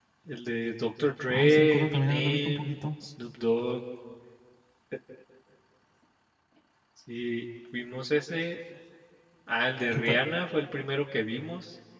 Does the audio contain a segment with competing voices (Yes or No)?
Yes